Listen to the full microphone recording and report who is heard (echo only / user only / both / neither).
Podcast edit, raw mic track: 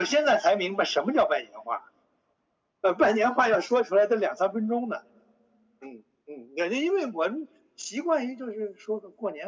echo only